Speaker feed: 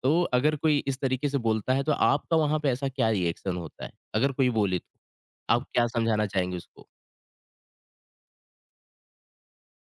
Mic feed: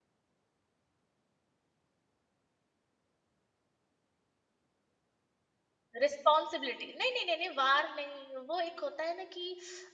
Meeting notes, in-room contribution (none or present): present